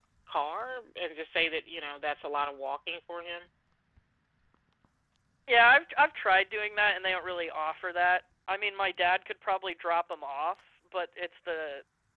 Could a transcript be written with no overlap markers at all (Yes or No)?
Yes